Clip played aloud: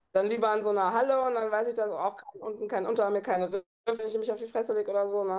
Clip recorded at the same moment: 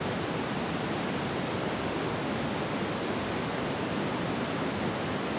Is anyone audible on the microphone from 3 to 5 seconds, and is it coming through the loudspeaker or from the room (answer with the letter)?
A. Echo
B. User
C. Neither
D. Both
C